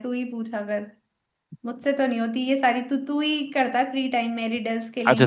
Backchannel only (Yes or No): No